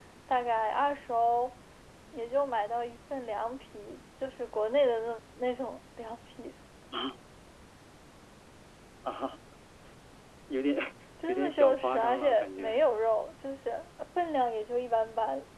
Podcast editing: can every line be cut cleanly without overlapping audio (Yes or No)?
No